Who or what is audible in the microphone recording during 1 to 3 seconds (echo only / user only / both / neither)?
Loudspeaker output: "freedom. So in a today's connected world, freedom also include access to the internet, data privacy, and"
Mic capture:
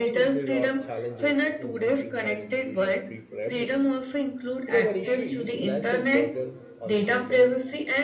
both